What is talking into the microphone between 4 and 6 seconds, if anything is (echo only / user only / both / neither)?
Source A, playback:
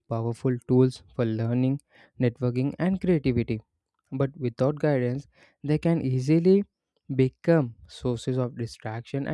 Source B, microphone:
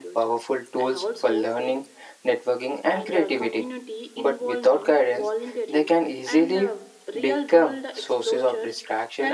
both